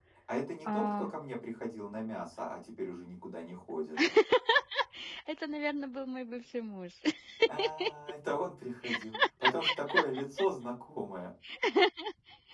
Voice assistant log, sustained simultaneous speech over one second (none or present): none